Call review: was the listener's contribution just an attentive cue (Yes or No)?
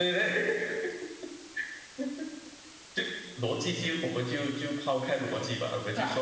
Yes